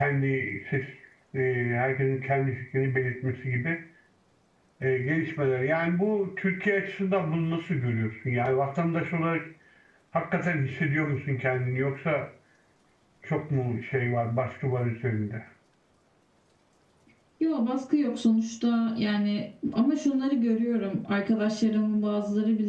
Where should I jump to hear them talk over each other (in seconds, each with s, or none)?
none